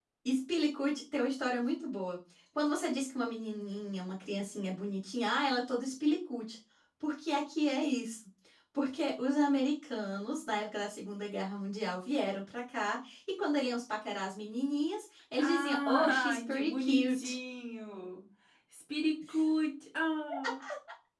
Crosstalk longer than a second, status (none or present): present